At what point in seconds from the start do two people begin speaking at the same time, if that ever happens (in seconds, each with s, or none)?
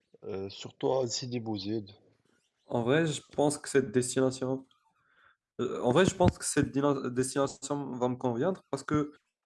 none